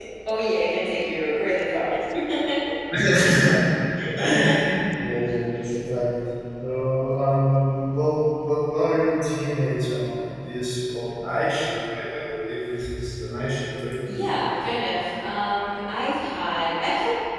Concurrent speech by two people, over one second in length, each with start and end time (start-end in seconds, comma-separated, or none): none